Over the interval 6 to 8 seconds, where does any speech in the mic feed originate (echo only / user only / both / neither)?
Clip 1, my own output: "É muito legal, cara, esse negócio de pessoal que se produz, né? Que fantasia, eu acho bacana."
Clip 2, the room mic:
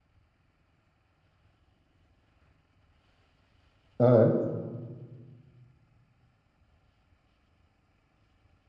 neither